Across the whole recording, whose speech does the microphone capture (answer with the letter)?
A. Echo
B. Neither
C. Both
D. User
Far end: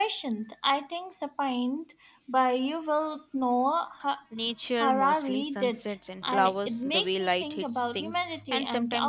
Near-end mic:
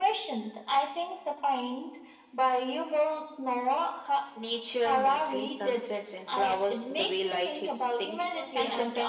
C